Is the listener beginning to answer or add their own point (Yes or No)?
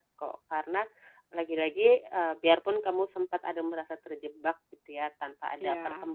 No